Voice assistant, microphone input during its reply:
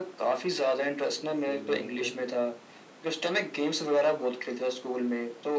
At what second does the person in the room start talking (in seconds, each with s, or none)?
1.4 s